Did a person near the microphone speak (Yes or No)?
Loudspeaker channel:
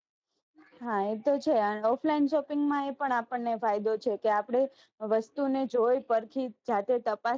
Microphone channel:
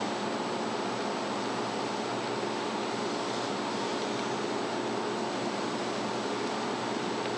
No